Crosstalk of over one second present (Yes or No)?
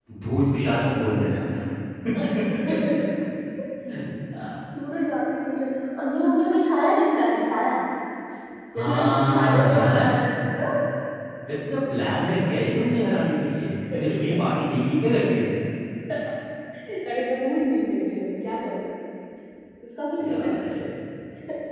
Yes